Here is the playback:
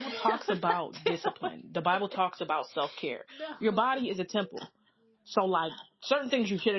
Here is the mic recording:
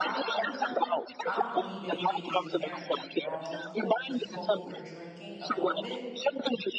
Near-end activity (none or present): present